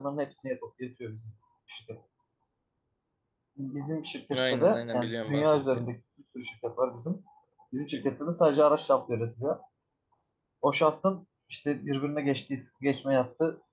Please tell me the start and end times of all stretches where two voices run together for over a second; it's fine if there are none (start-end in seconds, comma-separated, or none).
4.3-5.9